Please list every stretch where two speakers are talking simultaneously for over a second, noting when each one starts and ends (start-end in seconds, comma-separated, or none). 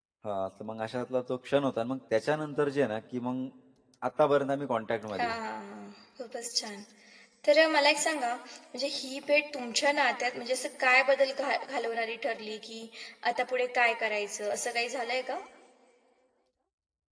none